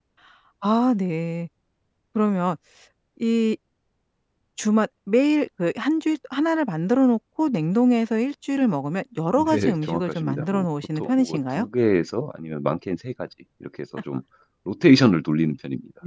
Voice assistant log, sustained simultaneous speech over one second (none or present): present